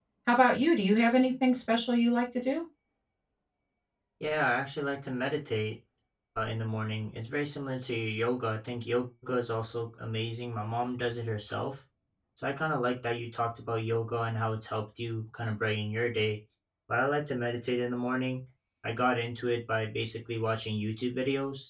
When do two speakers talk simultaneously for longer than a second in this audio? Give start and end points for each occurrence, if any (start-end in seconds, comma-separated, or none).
none